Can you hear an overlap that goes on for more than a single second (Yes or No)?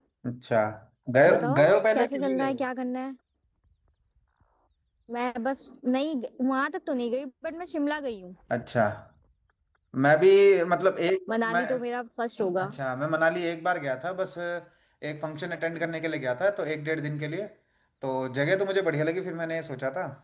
Yes